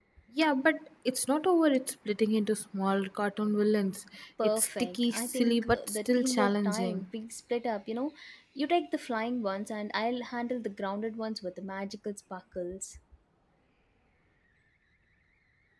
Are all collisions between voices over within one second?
No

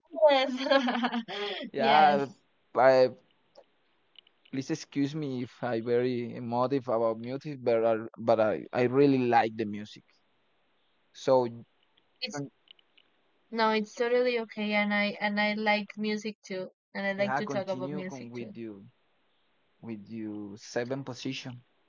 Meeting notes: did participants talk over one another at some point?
Yes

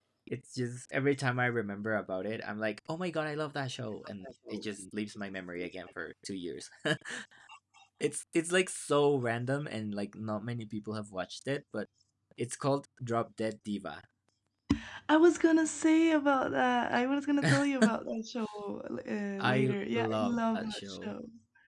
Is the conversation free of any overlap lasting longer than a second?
No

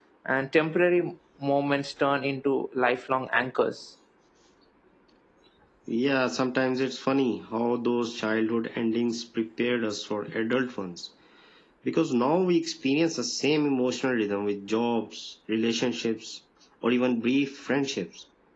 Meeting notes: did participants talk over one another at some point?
No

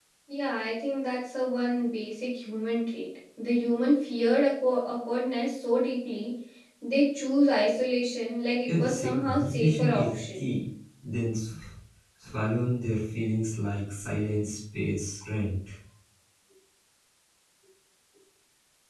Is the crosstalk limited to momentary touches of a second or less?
No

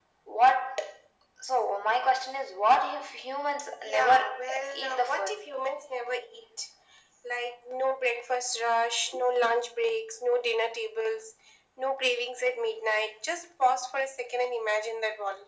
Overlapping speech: Yes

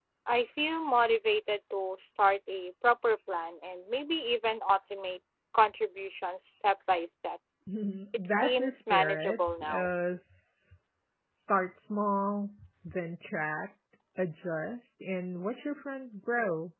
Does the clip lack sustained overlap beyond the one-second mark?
No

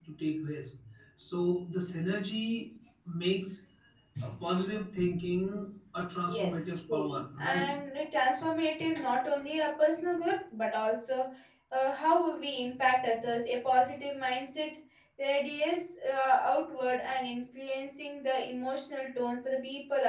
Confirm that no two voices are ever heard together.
No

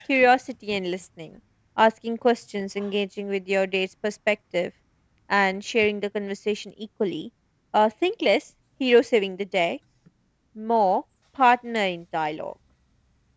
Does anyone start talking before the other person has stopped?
No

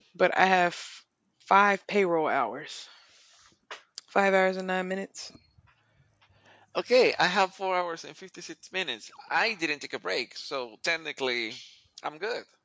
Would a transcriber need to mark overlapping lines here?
No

